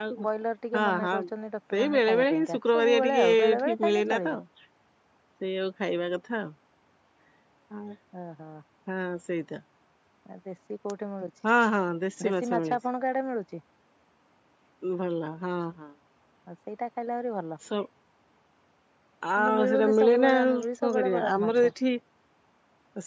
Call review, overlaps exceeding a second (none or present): present